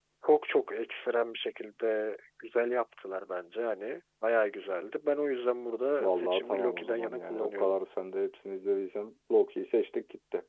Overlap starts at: 6.0 s

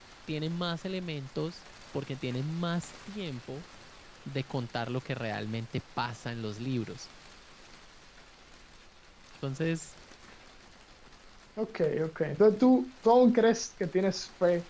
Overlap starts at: none

